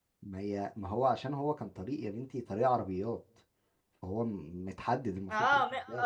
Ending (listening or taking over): taking over